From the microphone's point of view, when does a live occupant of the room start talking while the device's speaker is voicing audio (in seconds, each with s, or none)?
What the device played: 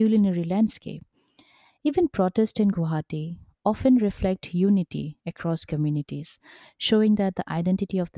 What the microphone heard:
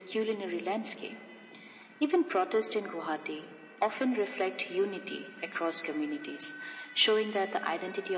none